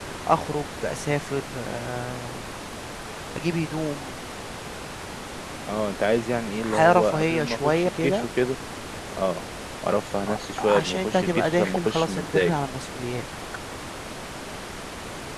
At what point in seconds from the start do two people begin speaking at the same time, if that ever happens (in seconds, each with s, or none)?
6.6 s